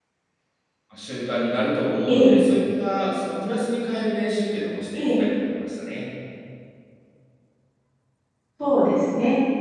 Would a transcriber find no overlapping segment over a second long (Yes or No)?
Yes